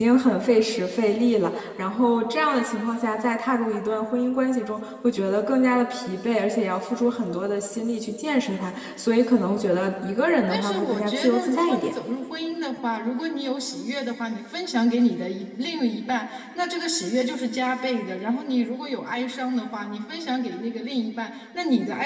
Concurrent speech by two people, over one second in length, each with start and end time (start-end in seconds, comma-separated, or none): 10.5-11.9